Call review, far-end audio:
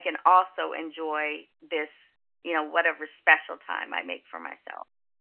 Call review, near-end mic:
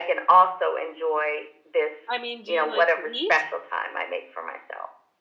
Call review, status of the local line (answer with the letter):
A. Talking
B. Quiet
A